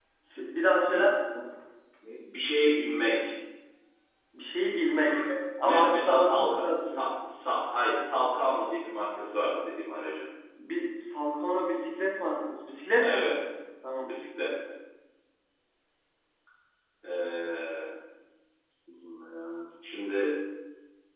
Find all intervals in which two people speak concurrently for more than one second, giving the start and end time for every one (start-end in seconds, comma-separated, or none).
5.6-7.0